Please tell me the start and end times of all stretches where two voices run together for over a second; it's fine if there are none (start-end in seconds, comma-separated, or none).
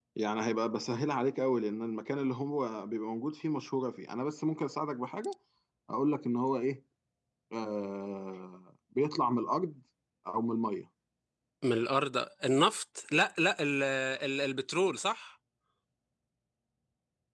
none